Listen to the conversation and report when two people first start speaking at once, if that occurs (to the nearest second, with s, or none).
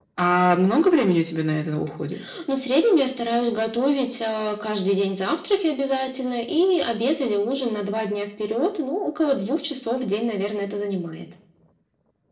none